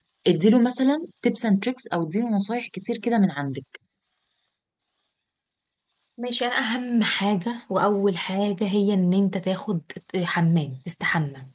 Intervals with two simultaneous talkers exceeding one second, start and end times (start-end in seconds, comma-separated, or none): none